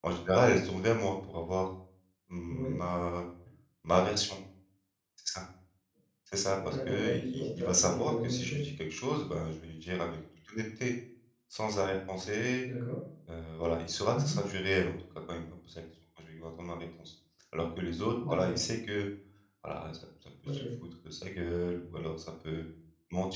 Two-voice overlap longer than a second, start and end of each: 6.5-8.7

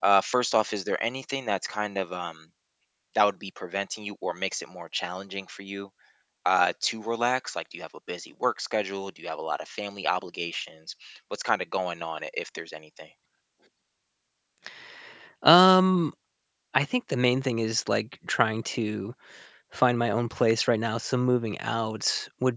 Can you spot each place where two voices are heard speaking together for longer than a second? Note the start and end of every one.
none

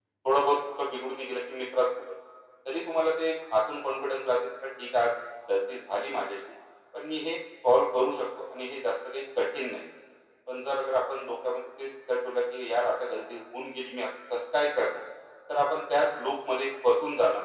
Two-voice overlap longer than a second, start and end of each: none

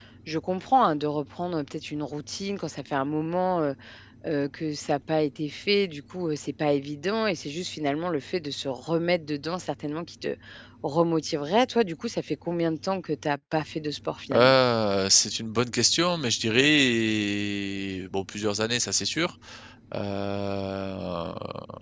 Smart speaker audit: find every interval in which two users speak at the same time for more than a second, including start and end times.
none

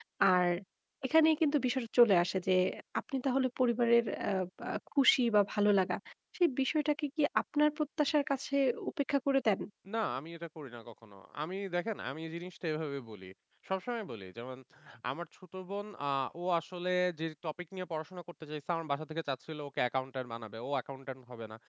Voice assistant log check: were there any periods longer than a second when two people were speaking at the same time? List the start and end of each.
none

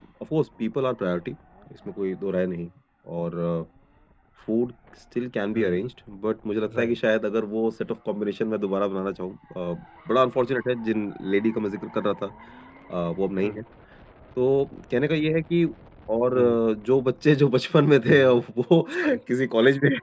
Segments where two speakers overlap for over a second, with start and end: none

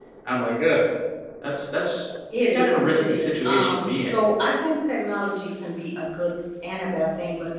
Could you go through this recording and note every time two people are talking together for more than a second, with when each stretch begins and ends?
2.4-4.2

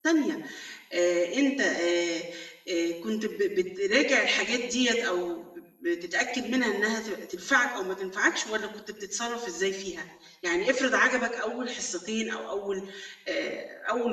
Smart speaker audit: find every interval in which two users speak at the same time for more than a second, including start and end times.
none

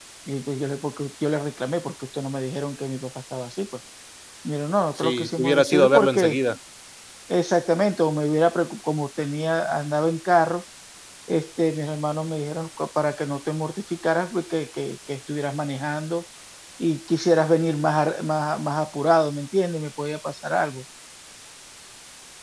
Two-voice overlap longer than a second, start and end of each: 5.0-6.4

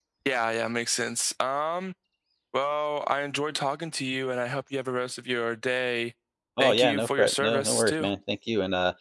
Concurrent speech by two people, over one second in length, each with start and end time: 6.6-8.1

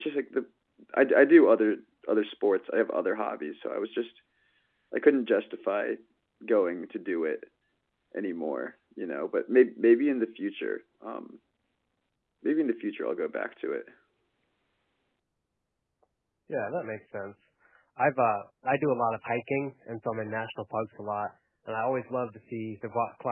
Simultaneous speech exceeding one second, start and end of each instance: none

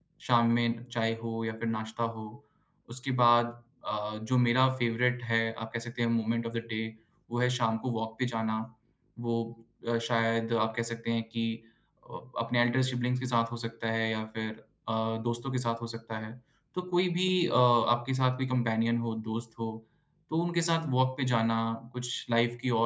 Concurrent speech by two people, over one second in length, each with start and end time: none

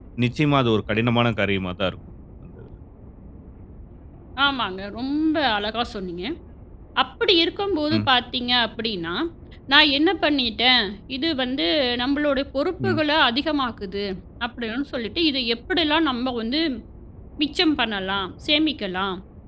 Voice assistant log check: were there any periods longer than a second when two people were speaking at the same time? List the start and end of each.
none

